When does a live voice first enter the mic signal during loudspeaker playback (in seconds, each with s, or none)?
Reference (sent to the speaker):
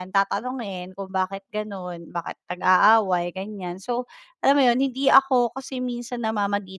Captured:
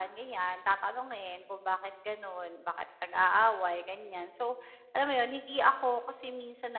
none